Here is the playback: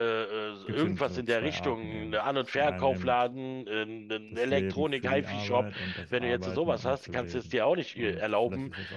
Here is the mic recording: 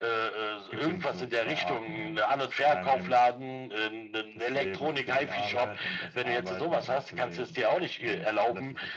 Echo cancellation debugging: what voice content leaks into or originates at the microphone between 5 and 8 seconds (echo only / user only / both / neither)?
echo only